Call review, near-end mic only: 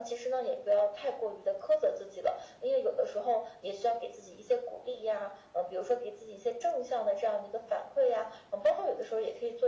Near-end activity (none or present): none